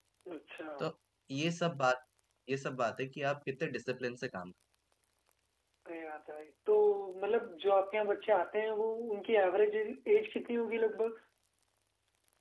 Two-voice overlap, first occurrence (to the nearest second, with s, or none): none